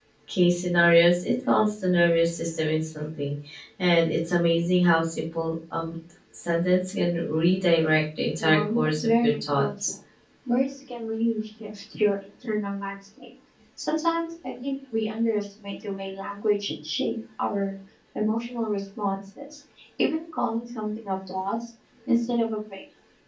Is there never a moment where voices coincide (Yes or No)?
No